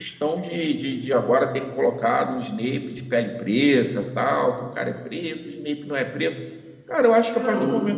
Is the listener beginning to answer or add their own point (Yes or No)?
No